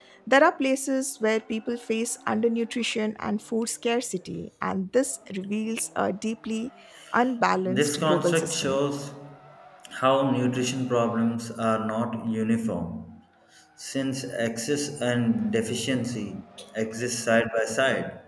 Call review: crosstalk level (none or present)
present